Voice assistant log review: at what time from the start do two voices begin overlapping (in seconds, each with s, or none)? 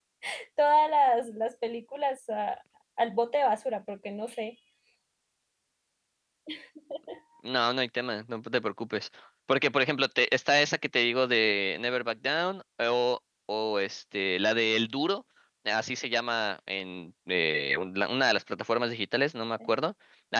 none